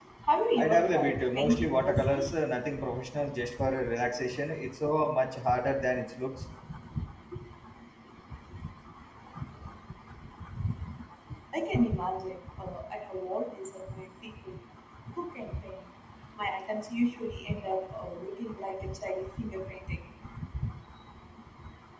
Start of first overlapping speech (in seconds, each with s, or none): 0.6 s